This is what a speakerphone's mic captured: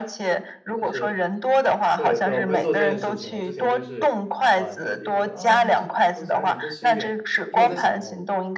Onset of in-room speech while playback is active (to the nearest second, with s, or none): 1 s